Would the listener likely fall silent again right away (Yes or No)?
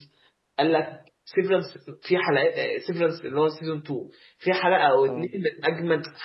Yes